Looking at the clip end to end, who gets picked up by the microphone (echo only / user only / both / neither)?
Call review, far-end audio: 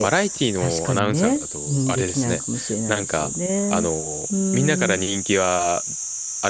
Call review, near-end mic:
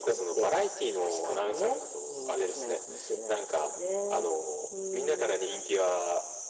echo only